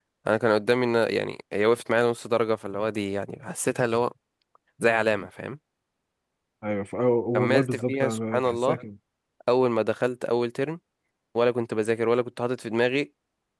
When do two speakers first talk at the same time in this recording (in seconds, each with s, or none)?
7.3 s